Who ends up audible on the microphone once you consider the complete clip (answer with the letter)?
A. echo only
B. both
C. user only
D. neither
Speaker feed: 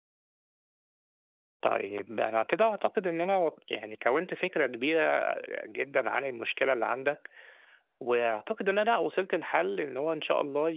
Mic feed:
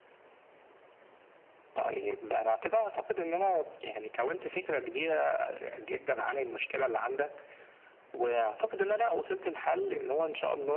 A